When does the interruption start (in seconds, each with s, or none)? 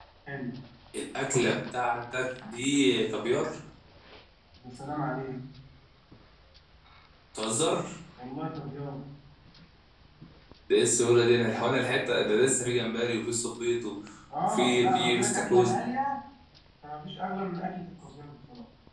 14.4 s